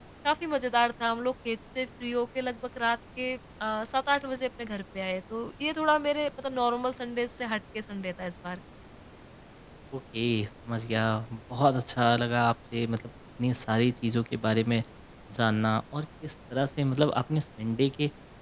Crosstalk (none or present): none